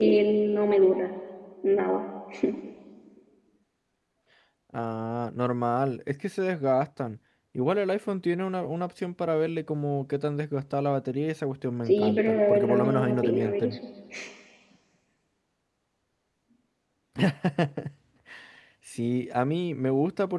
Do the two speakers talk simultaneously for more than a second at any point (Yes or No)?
Yes